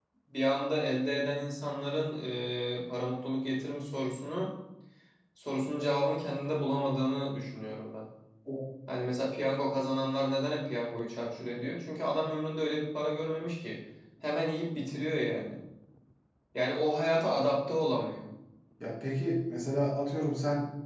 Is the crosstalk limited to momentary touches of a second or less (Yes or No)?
Yes